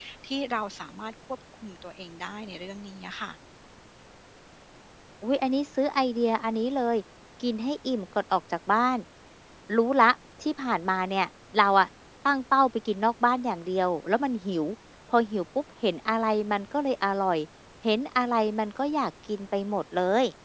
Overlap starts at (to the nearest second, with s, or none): none